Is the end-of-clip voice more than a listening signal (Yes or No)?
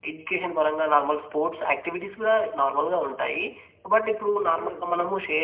No